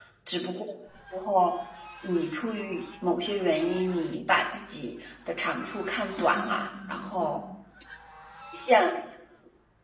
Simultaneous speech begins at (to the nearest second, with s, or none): 6 s